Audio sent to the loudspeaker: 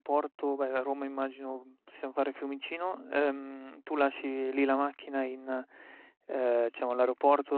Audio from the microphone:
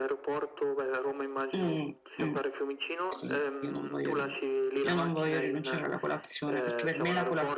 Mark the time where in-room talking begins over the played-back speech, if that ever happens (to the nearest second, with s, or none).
2 s